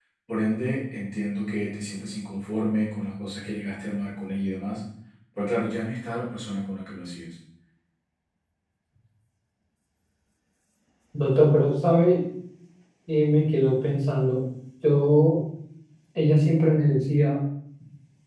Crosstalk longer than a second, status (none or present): none